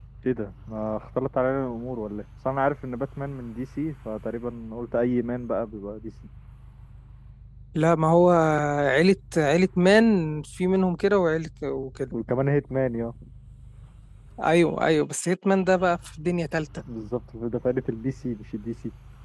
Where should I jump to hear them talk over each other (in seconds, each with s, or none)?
none